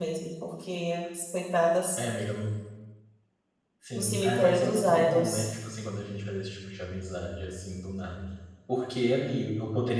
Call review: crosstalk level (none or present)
present